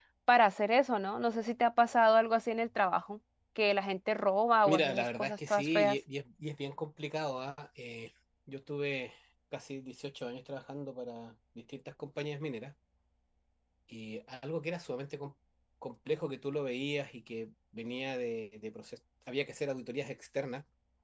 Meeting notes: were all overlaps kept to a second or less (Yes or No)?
No